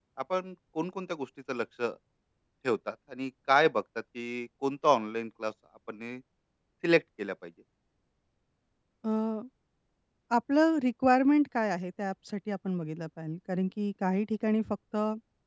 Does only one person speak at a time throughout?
Yes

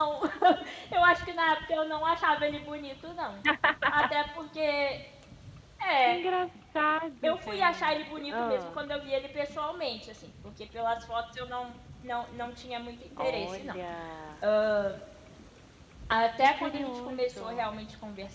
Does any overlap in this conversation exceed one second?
Yes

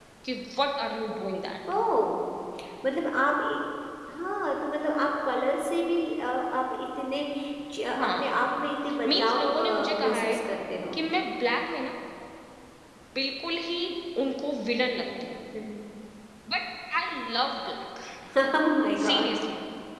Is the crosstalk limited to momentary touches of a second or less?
No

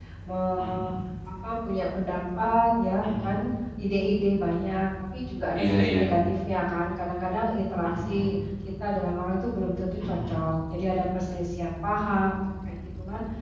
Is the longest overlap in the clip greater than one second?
No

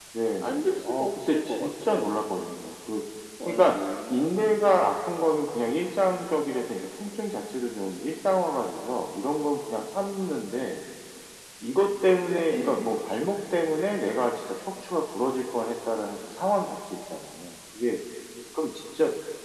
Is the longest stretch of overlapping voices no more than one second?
No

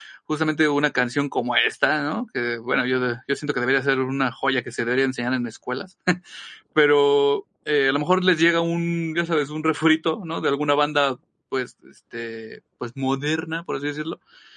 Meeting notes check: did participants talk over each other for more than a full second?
No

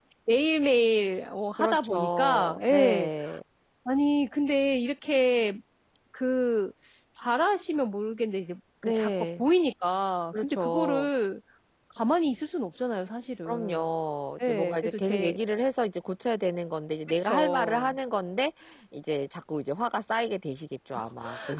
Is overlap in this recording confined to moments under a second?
No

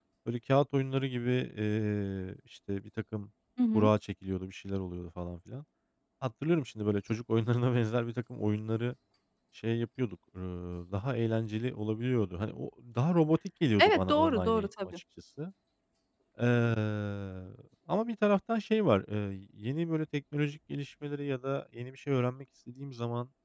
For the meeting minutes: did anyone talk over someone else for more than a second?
Yes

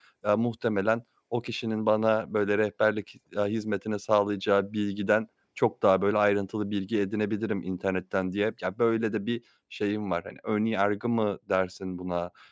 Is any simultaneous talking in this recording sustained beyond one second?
No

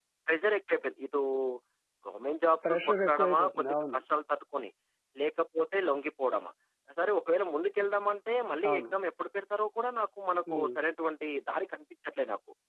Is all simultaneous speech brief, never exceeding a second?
No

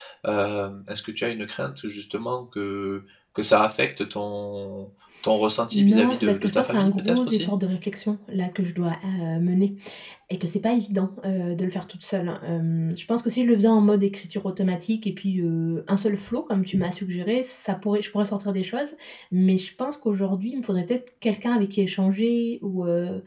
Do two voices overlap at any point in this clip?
Yes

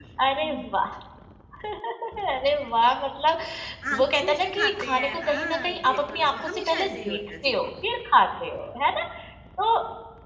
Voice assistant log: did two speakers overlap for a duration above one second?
Yes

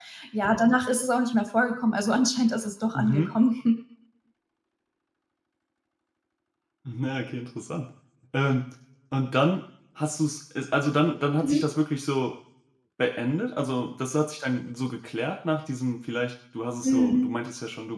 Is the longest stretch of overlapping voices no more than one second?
Yes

